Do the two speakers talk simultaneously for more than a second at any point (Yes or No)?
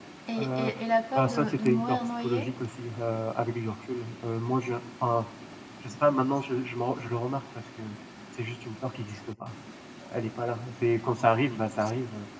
Yes